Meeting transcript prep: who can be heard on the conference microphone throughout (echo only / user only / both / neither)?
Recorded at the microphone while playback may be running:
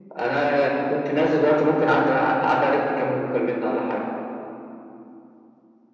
echo only